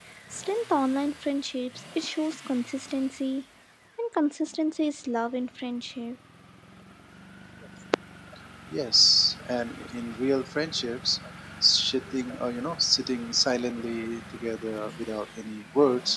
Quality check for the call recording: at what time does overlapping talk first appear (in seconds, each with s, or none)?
none